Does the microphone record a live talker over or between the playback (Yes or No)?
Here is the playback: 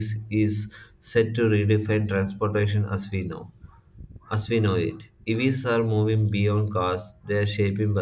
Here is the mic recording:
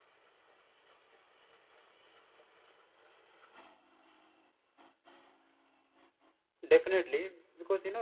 Yes